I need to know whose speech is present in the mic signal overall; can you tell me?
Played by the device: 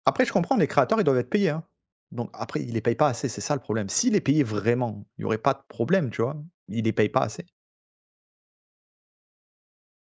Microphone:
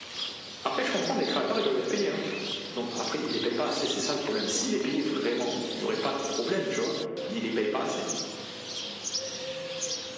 echo only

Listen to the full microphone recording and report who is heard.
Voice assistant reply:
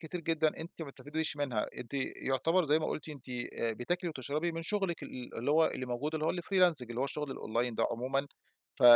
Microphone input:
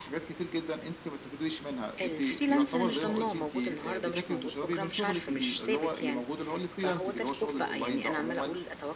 both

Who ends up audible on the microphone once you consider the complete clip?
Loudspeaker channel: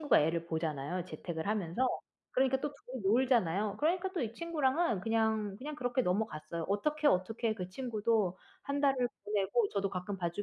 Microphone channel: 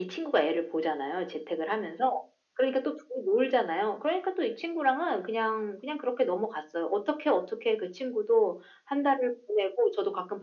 echo only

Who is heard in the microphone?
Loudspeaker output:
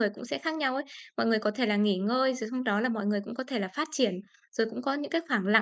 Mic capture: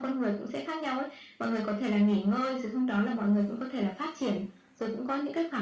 echo only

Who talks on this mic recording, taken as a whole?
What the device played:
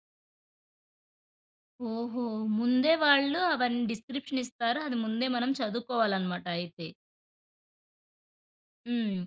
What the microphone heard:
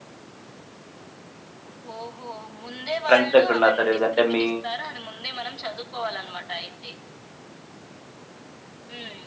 both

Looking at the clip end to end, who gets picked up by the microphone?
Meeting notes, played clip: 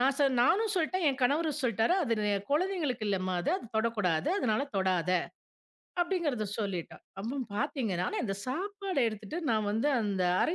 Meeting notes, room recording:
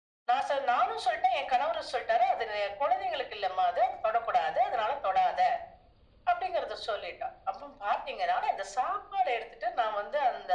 echo only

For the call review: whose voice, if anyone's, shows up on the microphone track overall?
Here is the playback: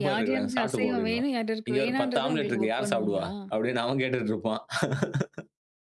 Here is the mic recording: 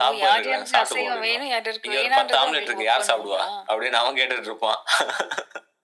echo only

